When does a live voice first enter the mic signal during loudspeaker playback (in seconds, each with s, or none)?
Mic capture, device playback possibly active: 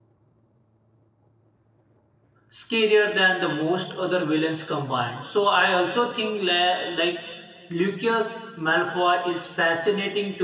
2.5 s